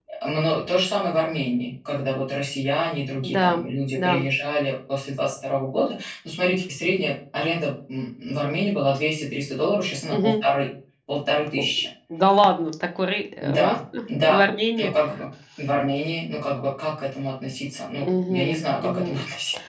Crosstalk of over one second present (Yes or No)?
Yes